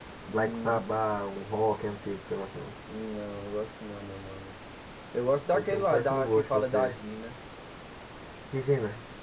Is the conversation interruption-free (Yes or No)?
No